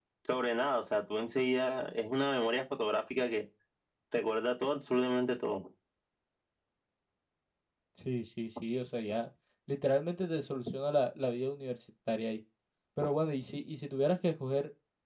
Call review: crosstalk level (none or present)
none